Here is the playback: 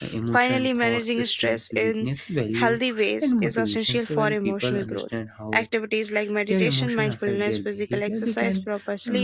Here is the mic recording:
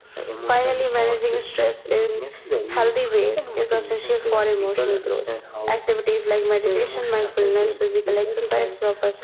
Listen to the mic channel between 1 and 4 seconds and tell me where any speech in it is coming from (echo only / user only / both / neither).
echo only